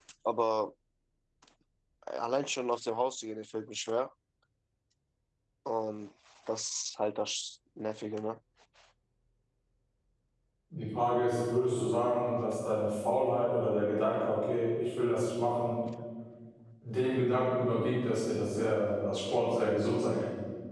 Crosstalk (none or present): none